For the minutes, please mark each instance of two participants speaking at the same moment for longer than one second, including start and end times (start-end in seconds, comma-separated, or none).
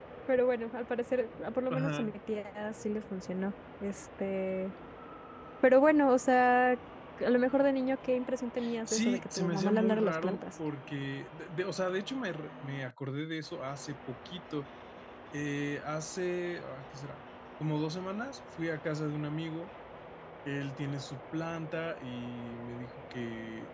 8.9-10.4